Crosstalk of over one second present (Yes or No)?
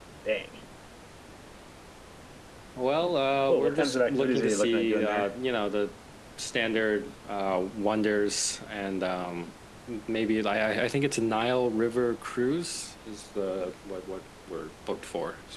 Yes